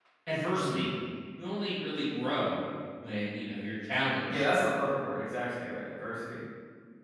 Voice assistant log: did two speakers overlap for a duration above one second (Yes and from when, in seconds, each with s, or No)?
No